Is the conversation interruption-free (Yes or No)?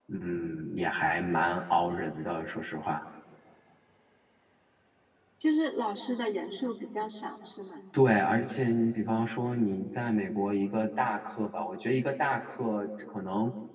Yes